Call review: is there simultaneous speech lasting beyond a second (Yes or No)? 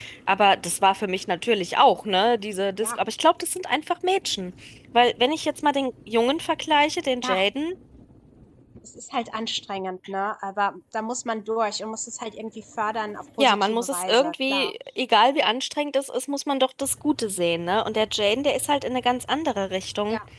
Yes